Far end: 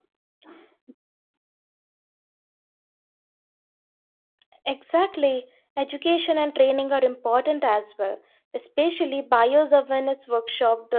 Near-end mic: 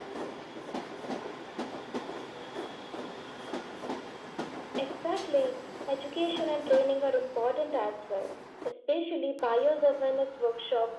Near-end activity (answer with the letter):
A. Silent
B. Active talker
A